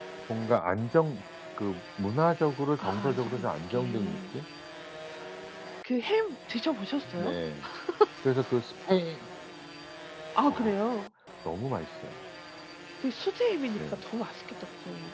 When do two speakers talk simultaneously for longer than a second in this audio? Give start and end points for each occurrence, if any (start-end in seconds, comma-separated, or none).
2.8-4.2